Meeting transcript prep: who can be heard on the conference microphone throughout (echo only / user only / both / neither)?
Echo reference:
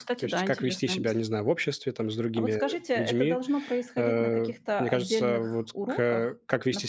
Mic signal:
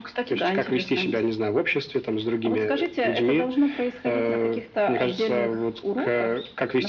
echo only